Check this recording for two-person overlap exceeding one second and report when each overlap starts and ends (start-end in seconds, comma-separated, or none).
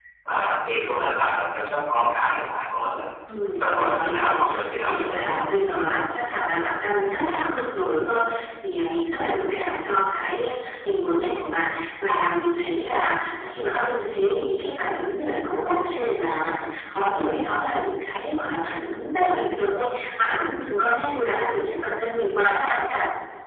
3.5-5.4